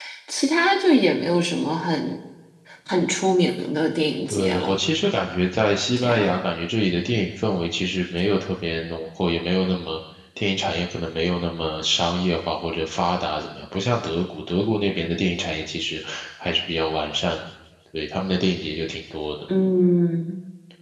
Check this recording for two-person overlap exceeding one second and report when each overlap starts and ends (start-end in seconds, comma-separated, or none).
none